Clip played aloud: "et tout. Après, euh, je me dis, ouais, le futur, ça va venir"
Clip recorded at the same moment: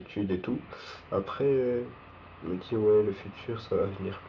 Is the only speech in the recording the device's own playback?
Yes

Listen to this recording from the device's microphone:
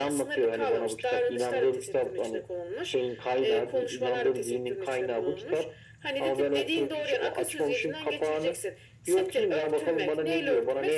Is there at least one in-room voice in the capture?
No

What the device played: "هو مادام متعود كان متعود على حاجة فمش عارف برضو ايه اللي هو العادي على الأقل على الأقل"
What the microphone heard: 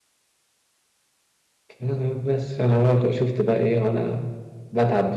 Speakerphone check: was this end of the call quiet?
No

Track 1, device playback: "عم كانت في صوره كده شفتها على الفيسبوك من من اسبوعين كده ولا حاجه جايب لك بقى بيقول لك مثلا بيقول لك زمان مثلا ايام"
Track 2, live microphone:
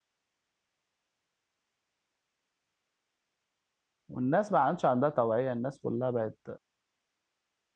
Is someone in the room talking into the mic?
Yes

